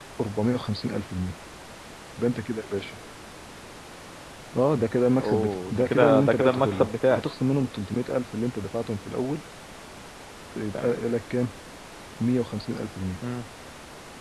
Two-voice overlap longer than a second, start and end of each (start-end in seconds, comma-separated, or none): 5.2-7.2